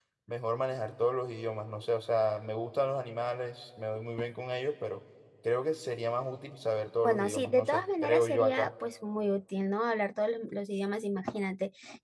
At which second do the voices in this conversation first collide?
7 s

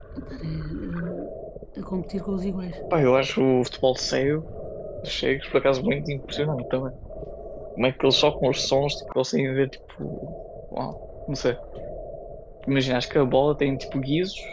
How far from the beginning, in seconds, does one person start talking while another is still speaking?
none

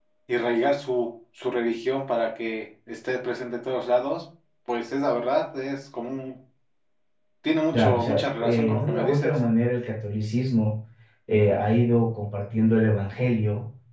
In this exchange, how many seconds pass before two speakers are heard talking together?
8 s

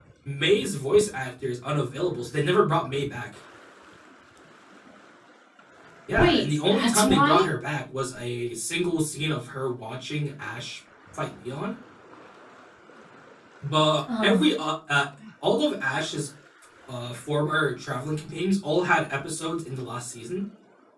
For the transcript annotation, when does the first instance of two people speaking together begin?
6 s

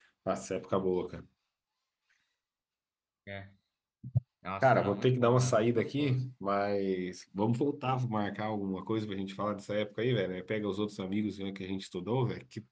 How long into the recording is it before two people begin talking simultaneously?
5 s

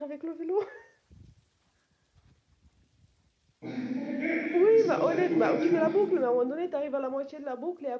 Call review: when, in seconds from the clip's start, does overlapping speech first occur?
5 s

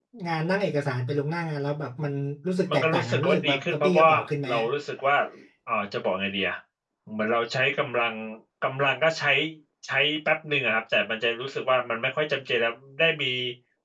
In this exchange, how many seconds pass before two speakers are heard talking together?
3 s

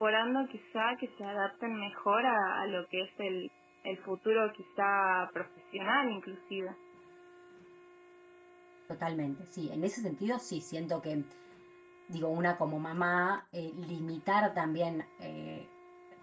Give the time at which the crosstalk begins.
none

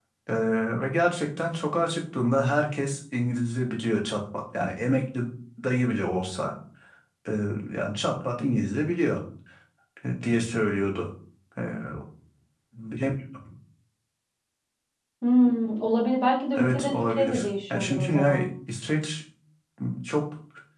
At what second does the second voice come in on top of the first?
17 s

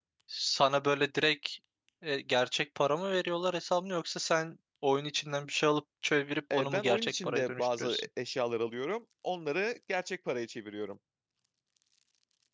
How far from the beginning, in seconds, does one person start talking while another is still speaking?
7 s

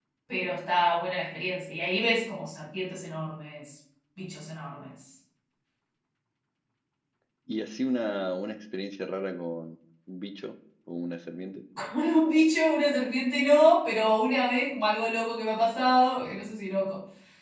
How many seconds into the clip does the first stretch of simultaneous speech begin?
none

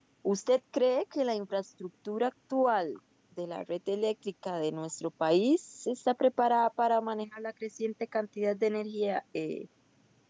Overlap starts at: none

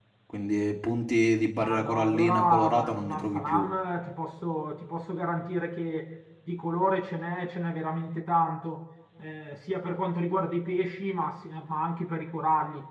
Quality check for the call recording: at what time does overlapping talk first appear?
2 s

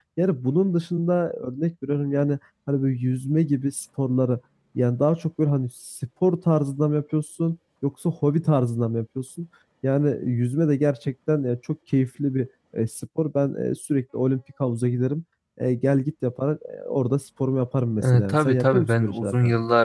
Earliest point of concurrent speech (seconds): 18 s

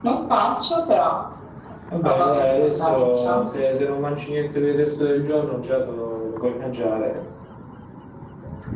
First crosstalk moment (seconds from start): 2 s

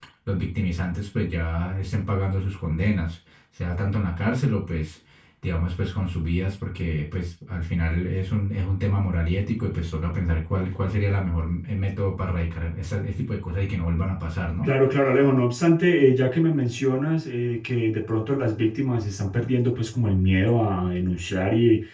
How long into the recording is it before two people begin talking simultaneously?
none

